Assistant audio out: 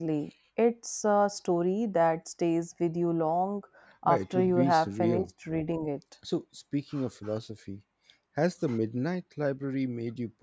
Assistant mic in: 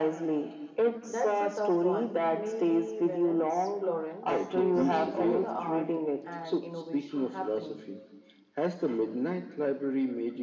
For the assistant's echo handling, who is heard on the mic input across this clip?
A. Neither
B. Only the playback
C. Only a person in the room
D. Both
D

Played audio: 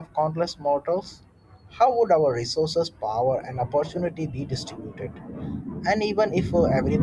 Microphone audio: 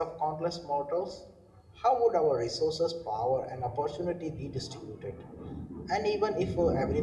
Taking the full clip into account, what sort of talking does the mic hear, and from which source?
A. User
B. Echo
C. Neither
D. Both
B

